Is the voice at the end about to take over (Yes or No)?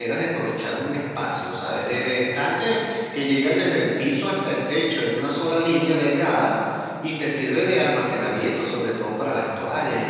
Yes